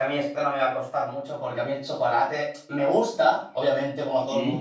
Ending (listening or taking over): listening